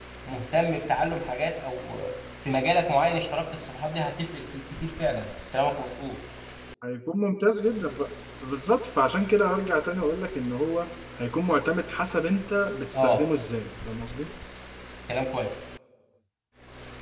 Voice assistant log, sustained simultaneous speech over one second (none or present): none